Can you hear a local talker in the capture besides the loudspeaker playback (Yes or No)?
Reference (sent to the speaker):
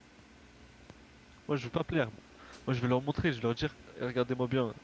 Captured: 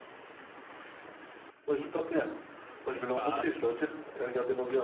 Yes